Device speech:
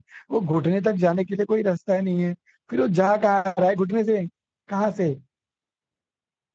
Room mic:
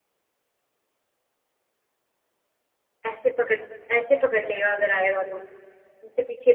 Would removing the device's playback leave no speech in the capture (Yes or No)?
No